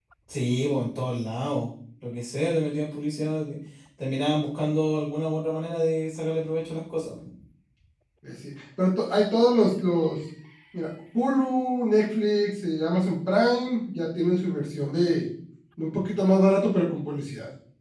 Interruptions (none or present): none